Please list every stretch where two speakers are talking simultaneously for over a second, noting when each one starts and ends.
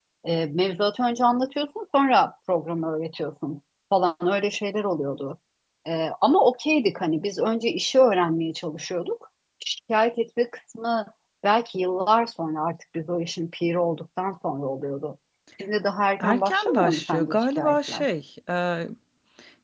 16.2-18.0

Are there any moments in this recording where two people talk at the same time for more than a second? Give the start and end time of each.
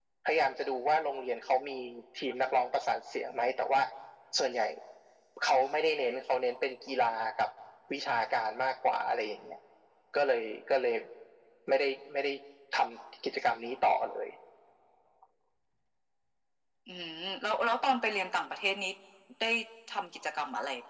none

